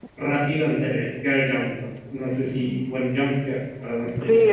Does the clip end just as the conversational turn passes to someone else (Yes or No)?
Yes